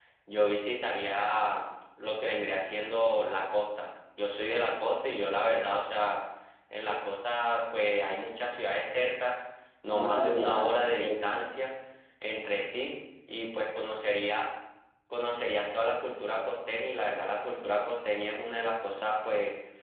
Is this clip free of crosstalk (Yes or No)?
No